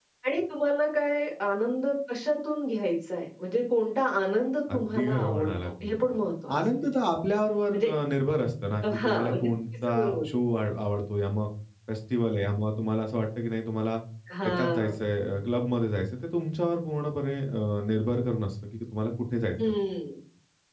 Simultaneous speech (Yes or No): Yes